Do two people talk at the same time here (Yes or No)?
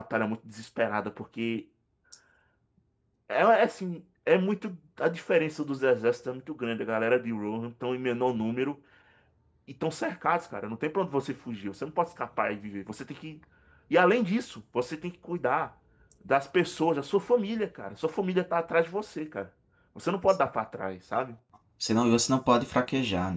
No